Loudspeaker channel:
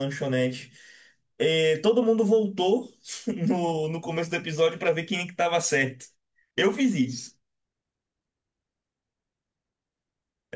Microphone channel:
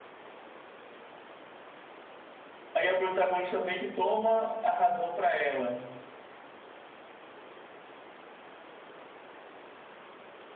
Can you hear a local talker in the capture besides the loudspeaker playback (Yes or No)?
Yes